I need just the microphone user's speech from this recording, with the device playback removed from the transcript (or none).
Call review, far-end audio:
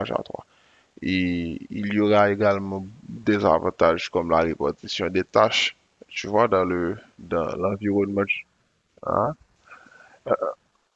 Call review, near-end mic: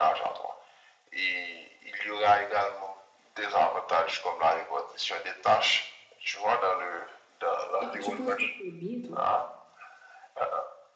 Ah, tu penses que c'est bien, toi?